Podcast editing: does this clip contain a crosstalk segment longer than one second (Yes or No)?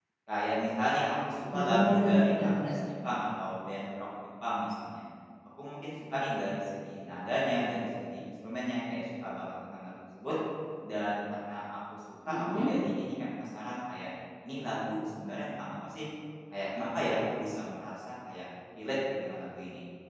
Yes